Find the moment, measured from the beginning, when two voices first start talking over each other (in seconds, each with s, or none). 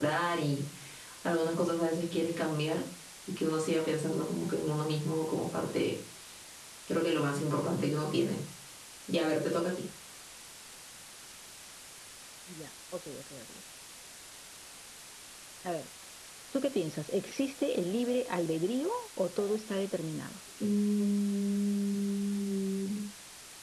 none